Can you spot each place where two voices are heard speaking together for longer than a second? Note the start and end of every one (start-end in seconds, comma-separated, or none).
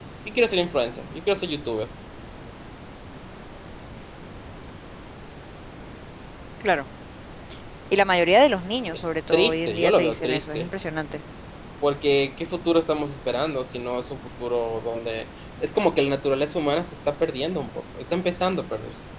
8.9-10.7